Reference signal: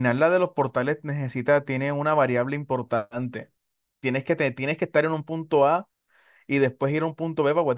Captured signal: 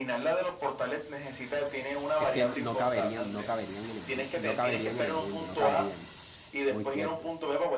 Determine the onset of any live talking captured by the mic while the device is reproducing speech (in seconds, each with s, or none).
2.2 s